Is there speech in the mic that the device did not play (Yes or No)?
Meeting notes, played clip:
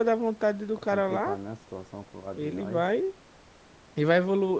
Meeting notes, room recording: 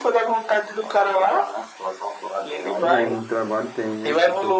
Yes